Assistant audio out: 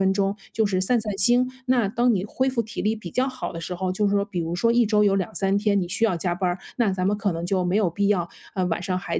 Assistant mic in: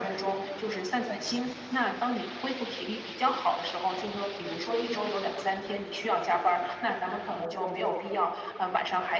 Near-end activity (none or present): none